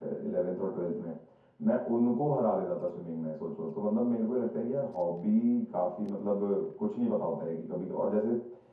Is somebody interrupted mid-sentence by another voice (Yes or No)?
No